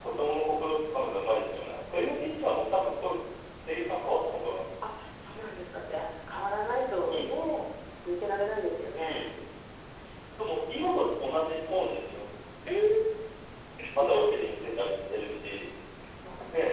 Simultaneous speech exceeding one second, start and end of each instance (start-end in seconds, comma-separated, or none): none